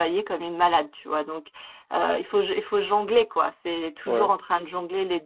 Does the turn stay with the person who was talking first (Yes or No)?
Yes